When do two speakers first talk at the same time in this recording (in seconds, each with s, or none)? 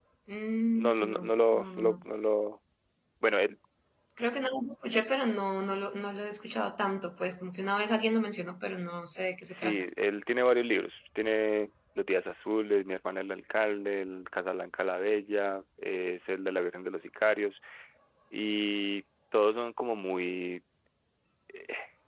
0.7 s